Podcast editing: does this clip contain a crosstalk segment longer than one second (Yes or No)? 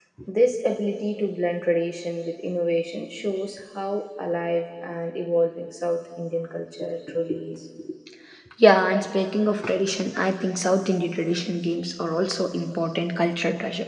No